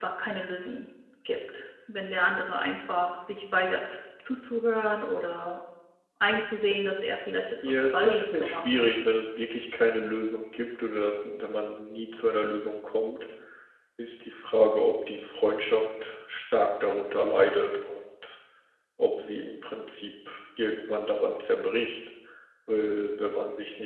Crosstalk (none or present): present